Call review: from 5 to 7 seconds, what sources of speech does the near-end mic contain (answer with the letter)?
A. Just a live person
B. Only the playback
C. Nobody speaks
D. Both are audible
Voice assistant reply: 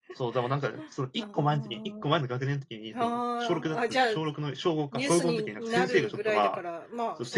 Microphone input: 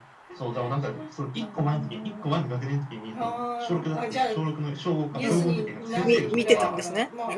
D